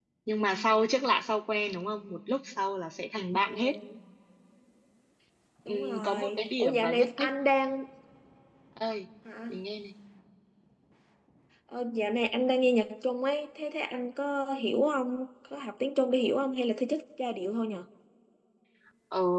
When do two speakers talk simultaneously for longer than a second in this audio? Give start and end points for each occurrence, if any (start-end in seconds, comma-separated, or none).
5.7-7.3